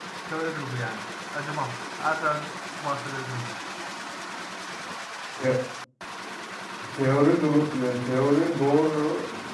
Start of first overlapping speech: none

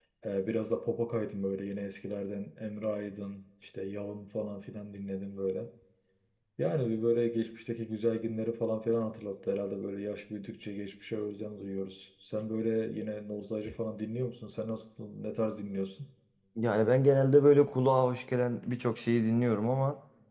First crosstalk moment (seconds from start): none

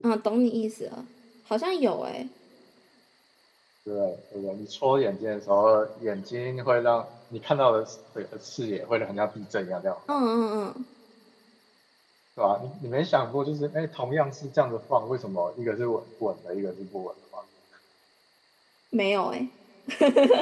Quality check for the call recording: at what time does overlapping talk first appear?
none

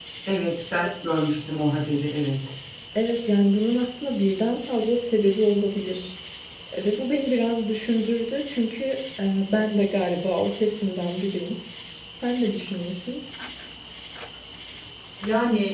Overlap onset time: none

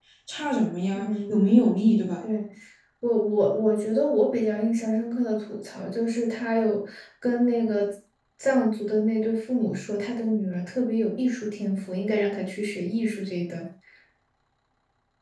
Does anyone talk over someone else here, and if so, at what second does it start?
0.9 s

